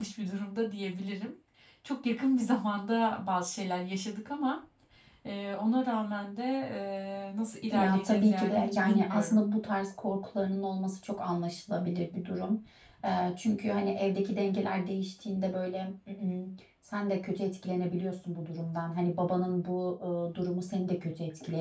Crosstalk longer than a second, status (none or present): present